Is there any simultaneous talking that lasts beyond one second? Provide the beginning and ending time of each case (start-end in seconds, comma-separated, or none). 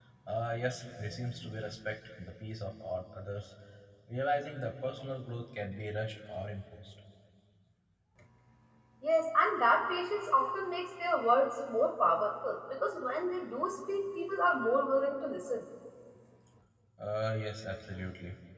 none